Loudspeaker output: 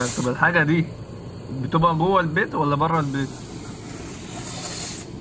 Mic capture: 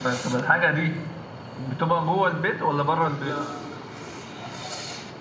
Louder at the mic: echo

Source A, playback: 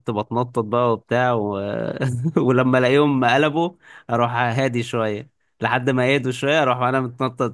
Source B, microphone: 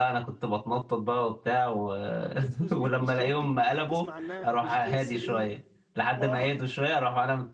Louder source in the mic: echo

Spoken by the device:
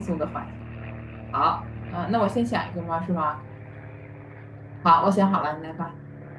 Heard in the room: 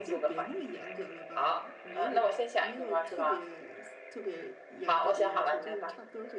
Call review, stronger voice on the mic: echo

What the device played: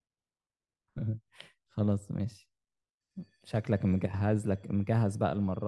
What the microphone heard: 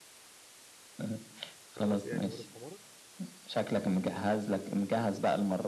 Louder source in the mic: echo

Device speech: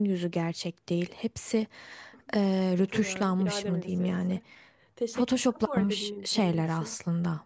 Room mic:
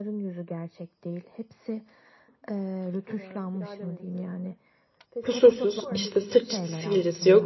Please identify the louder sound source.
user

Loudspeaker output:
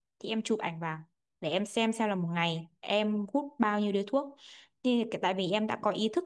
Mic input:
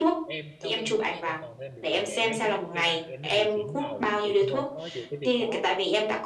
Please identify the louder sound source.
echo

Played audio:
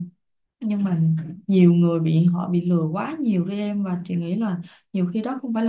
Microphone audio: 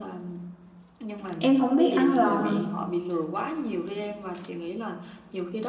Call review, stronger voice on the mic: user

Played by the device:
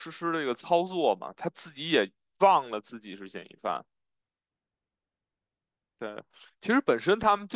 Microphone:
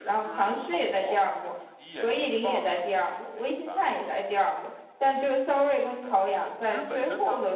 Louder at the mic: user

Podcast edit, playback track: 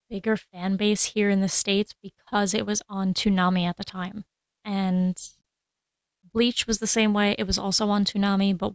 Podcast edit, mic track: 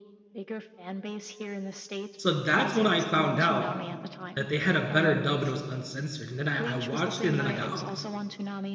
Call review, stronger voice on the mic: user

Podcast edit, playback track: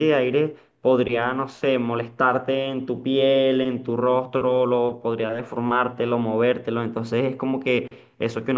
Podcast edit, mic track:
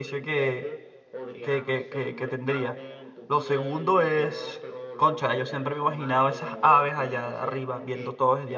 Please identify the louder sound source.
user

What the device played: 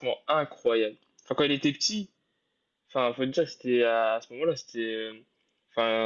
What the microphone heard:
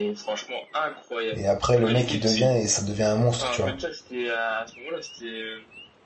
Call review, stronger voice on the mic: user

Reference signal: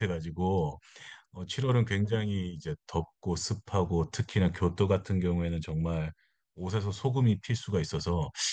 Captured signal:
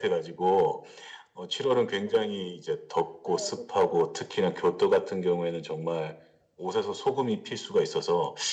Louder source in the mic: echo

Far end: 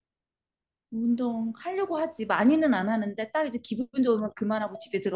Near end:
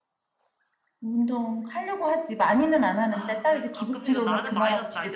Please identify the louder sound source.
echo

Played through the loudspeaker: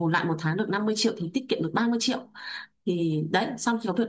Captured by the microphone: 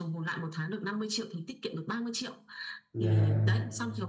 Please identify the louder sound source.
user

